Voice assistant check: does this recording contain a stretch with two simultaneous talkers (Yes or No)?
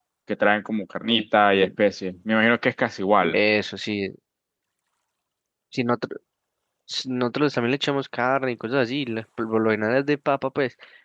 No